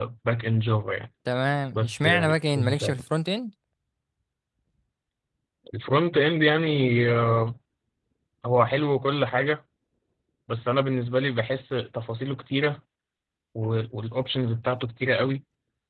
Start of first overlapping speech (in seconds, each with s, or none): 1.7 s